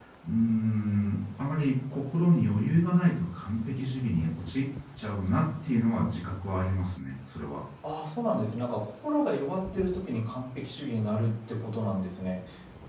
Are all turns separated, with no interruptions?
Yes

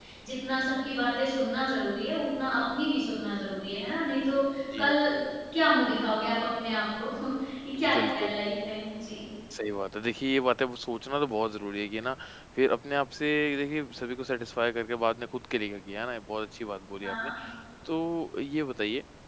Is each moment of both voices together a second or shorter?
Yes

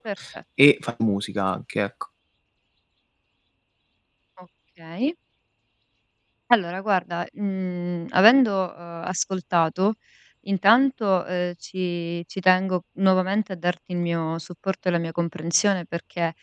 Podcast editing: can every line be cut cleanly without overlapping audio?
Yes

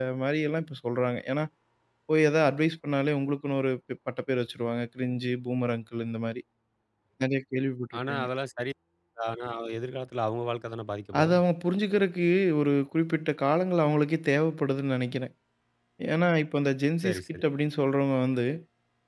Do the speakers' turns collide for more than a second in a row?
No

